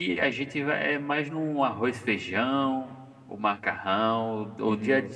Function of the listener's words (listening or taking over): listening